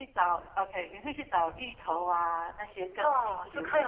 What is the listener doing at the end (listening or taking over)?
taking over